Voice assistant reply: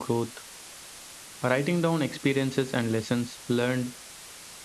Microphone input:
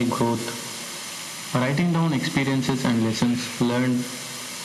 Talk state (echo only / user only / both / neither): echo only